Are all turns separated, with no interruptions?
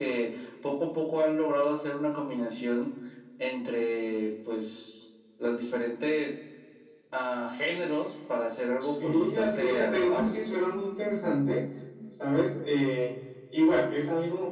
No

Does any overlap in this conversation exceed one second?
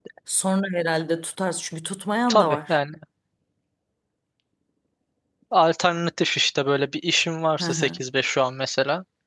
No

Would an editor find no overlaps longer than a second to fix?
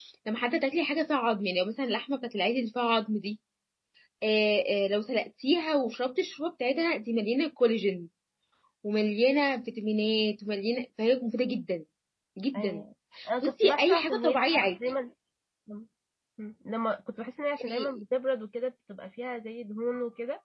No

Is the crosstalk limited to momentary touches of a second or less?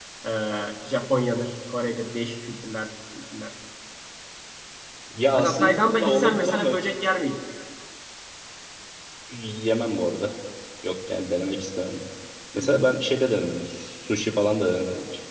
No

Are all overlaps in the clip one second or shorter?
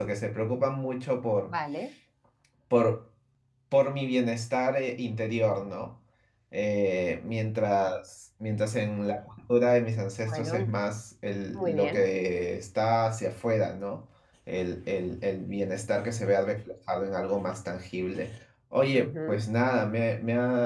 Yes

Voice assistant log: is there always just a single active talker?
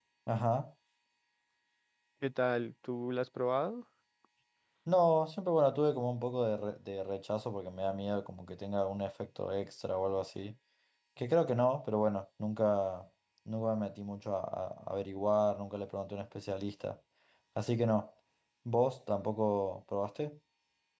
Yes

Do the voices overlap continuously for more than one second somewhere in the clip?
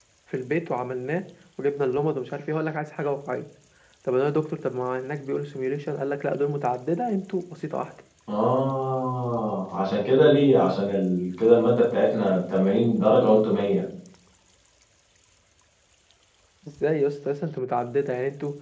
No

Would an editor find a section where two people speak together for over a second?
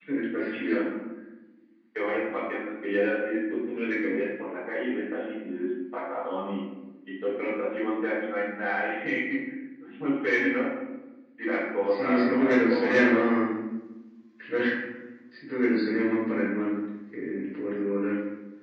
Yes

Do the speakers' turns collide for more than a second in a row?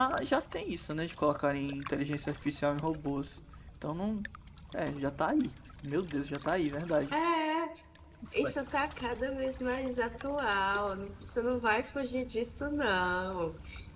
No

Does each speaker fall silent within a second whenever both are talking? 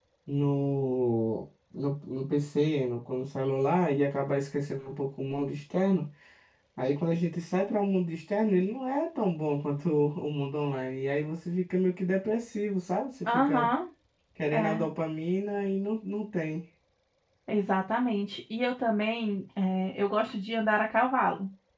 Yes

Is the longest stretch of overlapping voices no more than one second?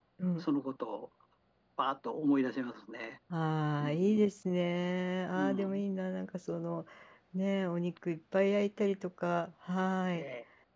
Yes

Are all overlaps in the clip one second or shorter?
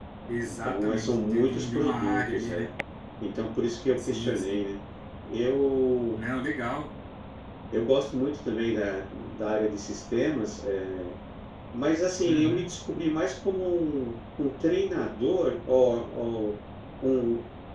No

